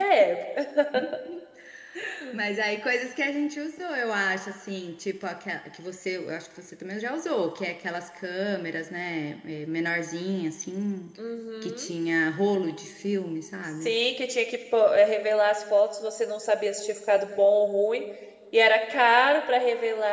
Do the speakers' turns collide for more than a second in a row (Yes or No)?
No